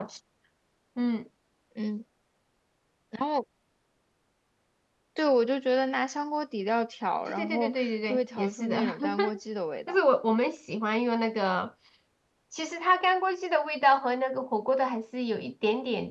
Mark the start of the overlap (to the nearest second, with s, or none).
7 s